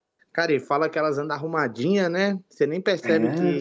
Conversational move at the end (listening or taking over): taking over